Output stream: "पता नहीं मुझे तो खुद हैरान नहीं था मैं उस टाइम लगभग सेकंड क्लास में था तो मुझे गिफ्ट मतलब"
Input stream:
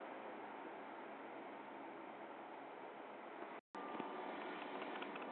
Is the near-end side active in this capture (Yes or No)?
No